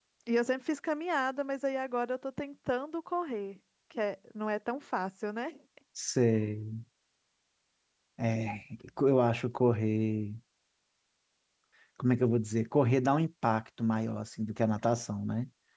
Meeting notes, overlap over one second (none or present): none